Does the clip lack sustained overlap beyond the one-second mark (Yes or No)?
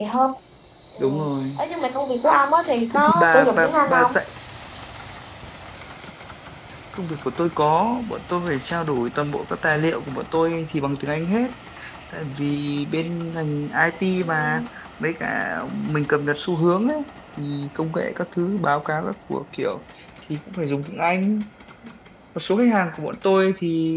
No